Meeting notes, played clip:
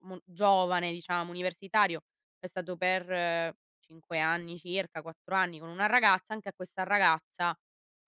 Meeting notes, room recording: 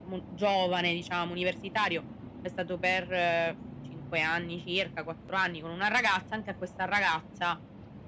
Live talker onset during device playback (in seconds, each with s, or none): none